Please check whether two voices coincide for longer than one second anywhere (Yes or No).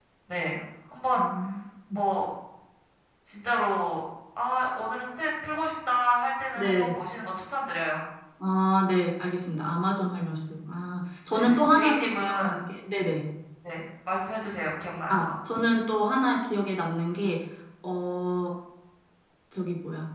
Yes